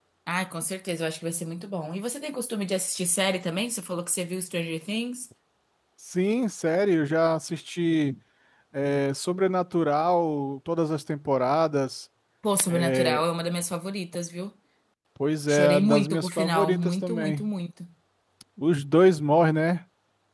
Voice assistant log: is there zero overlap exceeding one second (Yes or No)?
No